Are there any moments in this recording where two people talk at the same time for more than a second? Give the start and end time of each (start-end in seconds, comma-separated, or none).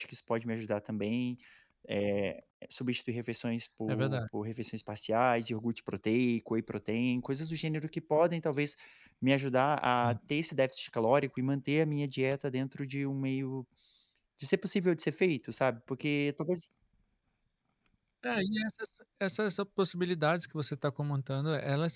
none